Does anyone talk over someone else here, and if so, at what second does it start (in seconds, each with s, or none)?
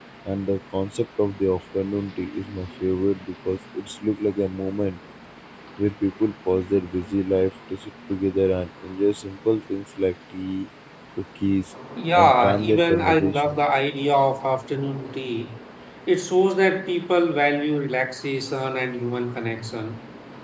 12.1 s